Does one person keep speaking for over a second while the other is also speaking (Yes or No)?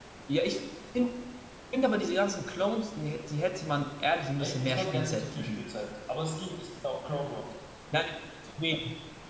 Yes